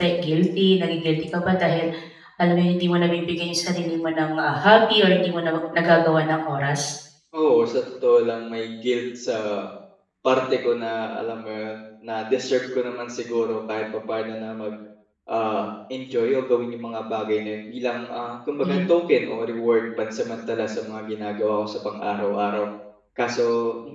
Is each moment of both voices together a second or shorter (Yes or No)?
Yes